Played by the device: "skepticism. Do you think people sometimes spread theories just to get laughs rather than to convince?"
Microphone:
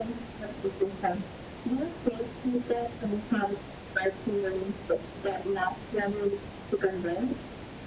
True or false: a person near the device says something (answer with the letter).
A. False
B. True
A